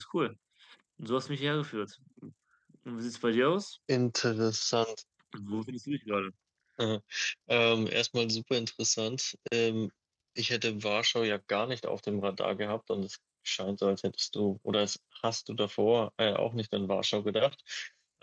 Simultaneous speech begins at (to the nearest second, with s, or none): none